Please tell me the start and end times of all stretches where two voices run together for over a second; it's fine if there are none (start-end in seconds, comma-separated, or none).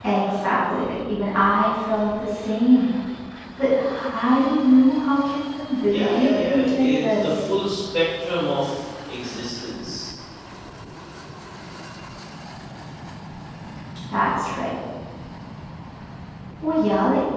5.8-7.3